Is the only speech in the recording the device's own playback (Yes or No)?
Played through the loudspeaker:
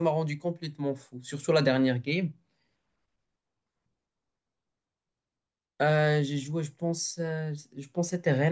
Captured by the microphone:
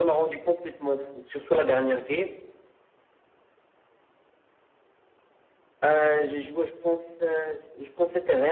Yes